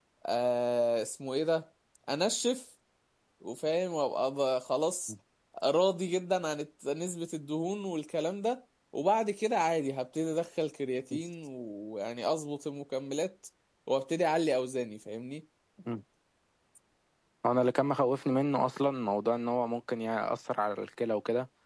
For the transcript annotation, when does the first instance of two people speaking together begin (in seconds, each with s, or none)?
none